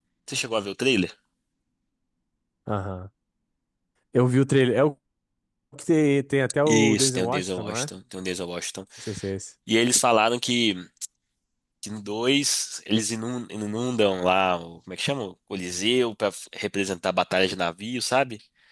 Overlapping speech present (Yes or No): Yes